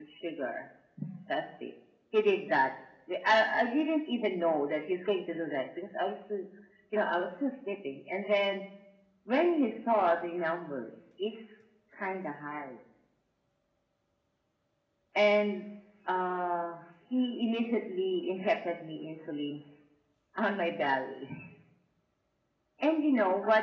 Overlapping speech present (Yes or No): No